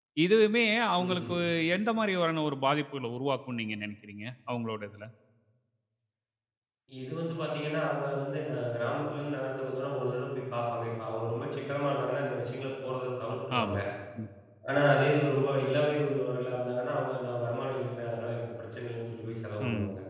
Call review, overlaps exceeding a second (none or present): none